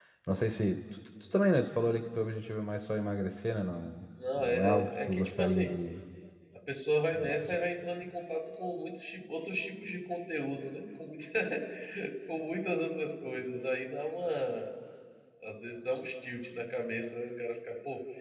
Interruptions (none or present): present